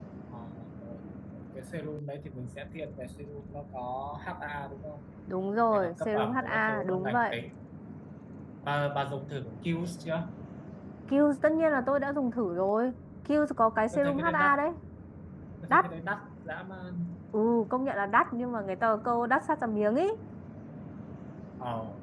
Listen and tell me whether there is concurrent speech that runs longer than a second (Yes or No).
Yes